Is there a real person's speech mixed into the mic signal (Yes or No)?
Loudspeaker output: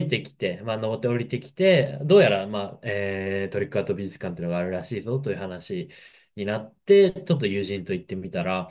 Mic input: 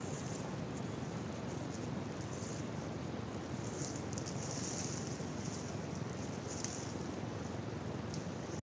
No